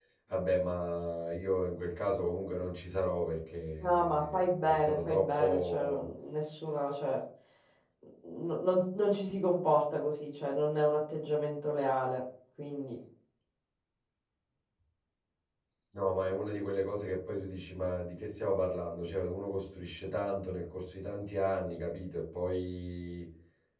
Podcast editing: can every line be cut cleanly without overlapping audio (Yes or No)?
No